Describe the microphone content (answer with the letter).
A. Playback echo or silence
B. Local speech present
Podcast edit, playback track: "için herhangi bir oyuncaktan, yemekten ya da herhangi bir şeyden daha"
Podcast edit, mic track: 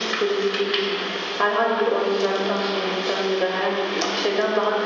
A